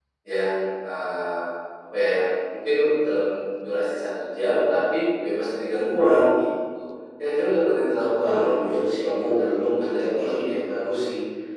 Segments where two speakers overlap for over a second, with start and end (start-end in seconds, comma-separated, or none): 8.2-10.6